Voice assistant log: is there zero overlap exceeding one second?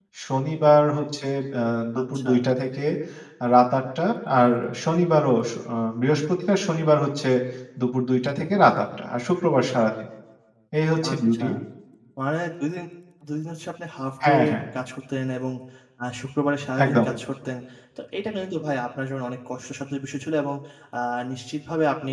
Yes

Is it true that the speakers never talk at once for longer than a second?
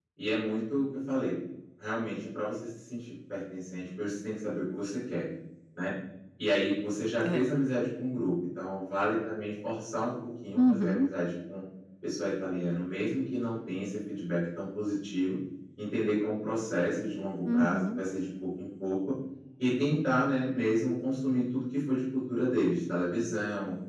Yes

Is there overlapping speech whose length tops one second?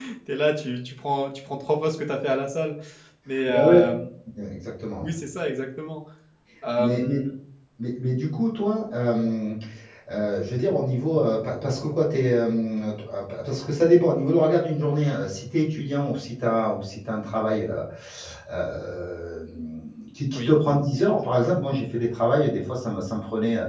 No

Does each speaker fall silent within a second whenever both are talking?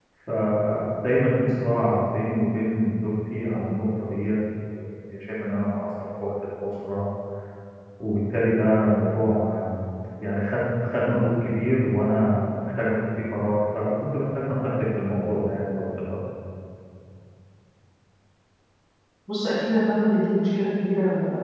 Yes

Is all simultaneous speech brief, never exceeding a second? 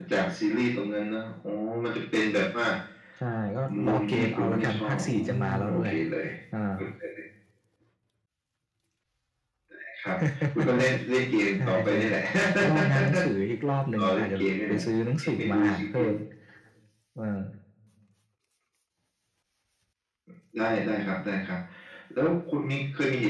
No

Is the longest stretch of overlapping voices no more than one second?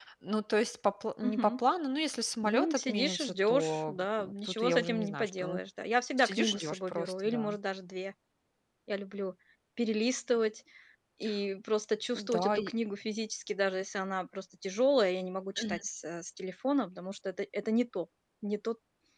No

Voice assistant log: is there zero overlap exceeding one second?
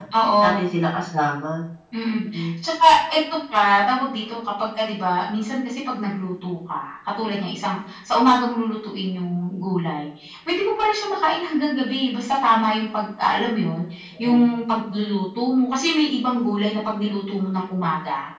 Yes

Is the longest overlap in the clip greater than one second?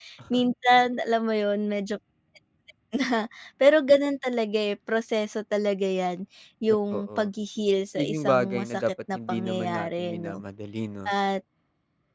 Yes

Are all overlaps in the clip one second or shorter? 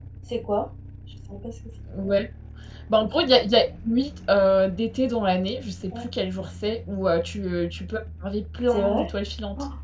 Yes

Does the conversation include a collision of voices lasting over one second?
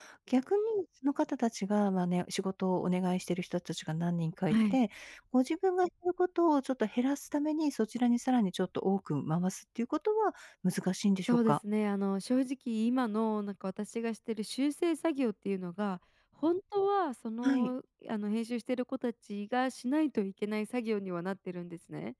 No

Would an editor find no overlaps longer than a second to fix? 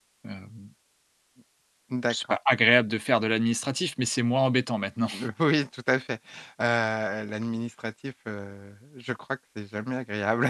Yes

